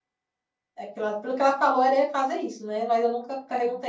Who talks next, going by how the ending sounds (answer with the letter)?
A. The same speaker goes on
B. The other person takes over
A